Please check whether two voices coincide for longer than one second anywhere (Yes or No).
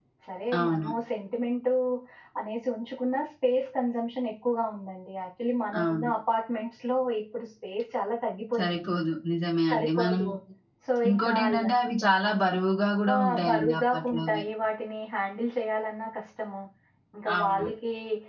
Yes